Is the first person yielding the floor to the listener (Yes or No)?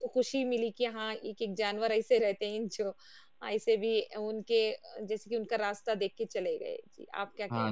Yes